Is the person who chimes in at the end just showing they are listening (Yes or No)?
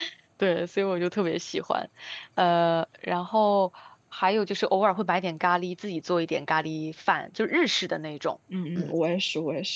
No